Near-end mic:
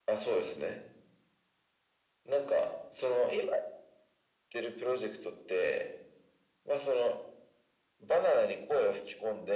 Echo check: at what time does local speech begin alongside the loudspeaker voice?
none

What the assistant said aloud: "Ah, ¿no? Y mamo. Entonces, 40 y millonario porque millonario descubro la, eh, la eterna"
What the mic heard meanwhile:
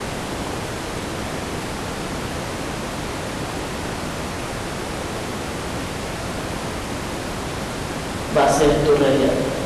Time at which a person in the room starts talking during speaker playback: 8.4 s

